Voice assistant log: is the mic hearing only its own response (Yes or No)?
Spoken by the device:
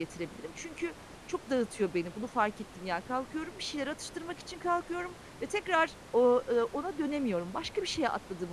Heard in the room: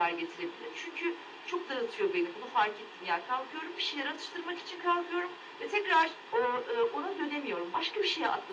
Yes